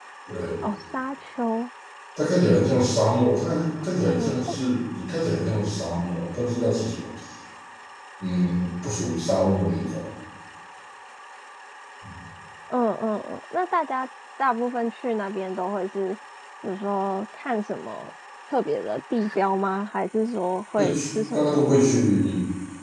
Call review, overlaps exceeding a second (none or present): present